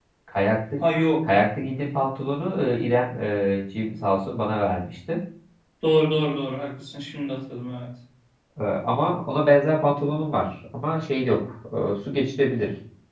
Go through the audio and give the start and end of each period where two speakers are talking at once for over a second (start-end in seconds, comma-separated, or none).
none